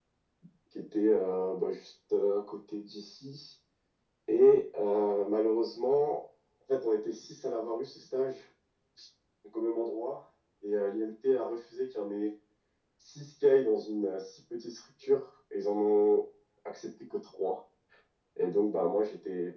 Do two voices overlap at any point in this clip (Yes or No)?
No